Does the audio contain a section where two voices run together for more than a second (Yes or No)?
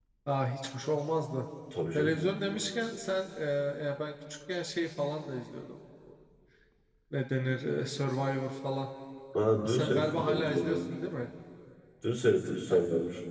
Yes